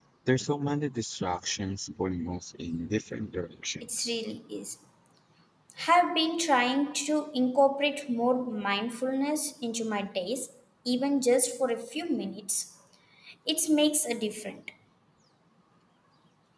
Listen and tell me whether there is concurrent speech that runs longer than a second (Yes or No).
No